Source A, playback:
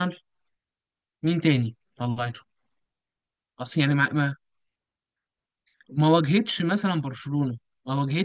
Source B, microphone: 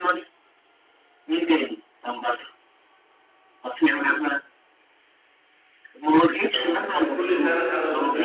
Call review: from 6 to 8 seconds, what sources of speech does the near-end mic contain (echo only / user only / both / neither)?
both